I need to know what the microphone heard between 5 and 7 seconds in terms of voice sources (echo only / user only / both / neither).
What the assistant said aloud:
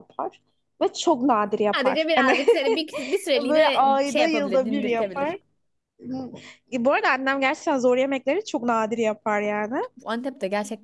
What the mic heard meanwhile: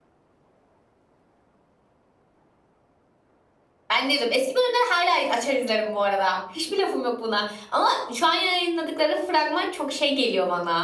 user only